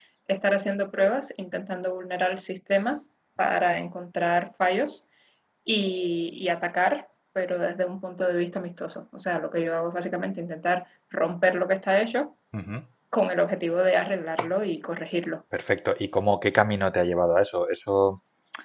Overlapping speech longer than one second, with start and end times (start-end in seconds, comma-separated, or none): none